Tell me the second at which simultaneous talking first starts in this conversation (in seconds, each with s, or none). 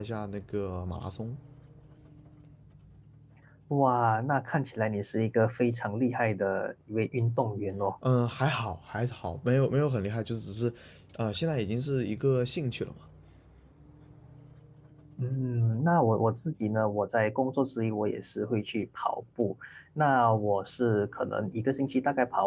none